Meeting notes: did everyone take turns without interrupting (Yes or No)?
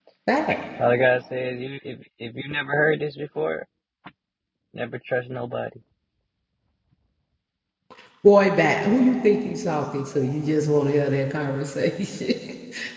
Yes